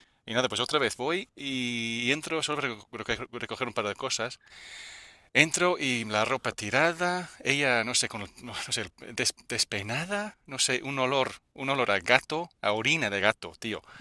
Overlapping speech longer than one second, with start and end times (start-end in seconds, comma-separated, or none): none